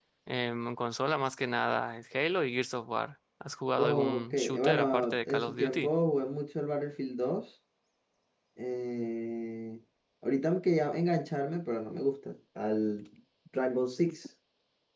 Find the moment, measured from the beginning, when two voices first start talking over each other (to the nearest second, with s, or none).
4 s